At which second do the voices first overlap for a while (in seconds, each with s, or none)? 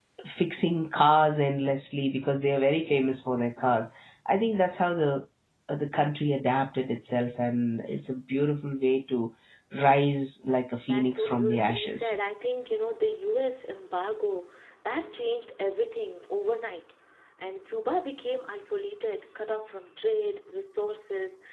10.9 s